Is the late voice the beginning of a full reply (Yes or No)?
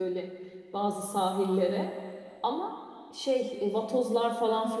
Yes